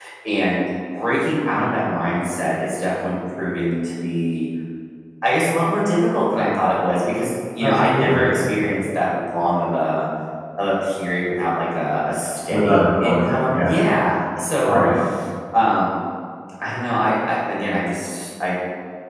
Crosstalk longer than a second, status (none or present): present